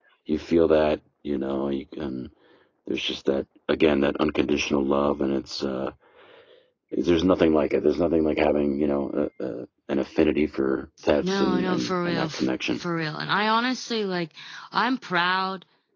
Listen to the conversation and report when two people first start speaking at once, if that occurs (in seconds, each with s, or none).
11.0 s